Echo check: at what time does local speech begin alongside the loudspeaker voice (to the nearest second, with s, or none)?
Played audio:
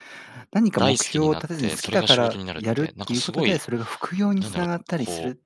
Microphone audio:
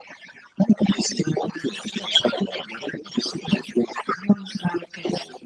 none